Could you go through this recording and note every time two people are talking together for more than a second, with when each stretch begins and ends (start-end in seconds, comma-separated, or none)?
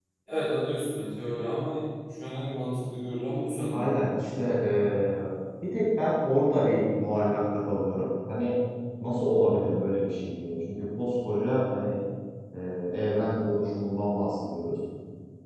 none